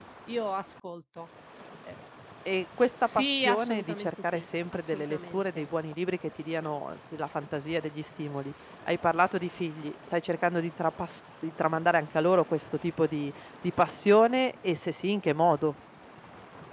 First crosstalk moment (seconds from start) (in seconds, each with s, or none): 3.1 s